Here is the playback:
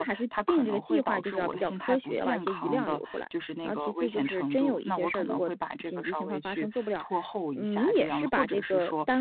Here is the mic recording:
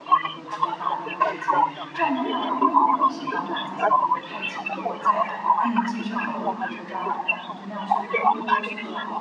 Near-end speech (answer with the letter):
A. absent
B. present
B